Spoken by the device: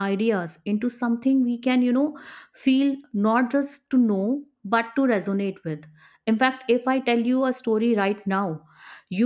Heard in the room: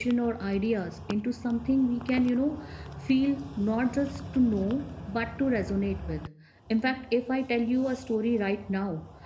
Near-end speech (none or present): none